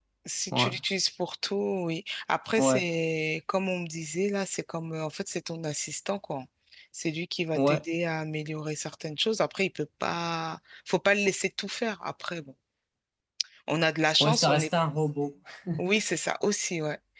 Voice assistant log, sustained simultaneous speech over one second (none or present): none